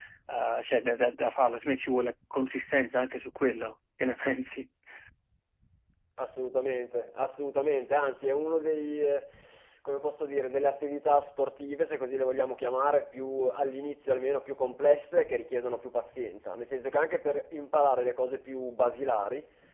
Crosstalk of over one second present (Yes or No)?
No